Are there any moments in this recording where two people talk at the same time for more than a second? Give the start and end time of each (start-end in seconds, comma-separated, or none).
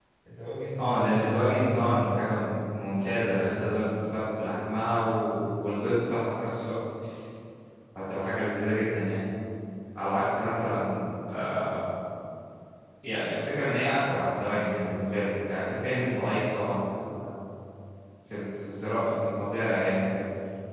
0.8-2.4